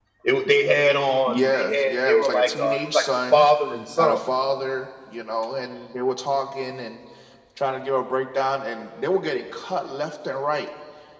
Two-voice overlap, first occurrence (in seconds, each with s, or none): 1.3 s